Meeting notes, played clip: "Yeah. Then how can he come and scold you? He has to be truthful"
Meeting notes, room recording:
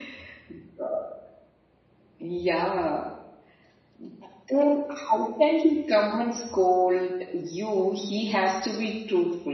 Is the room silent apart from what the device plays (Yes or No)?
Yes